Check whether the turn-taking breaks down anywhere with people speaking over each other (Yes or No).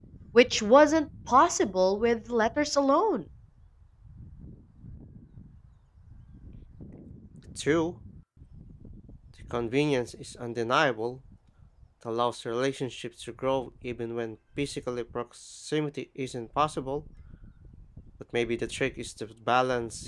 No